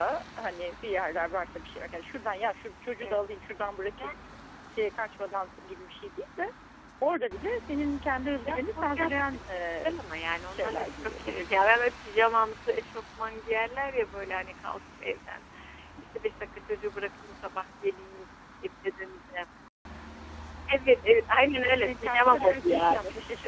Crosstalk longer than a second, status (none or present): present